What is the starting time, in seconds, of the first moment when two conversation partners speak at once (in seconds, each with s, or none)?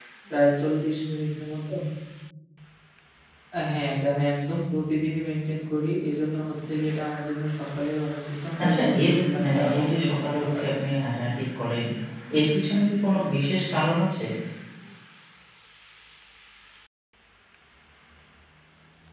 8.6 s